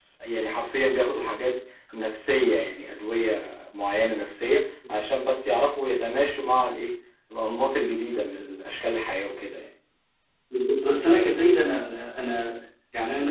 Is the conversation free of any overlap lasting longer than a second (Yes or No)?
Yes